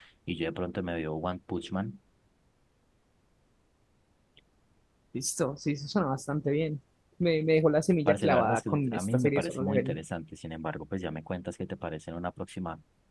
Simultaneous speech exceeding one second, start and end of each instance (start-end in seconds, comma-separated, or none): 8.1-10.0